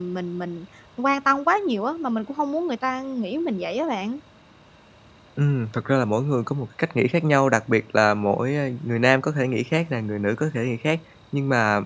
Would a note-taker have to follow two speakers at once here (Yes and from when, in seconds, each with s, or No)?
No